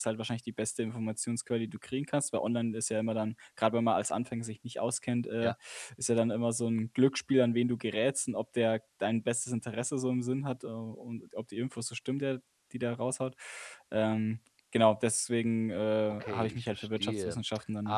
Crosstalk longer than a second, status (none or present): present